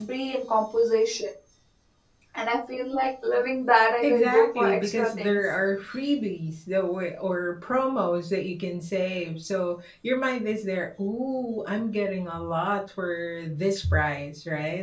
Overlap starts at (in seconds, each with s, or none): 4.0 s